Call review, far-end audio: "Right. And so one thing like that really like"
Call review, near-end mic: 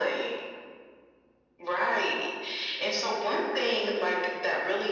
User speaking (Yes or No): No